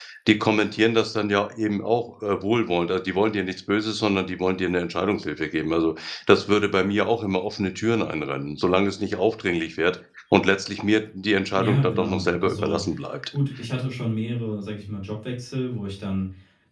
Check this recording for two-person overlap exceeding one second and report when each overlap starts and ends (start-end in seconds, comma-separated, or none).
11.6-12.8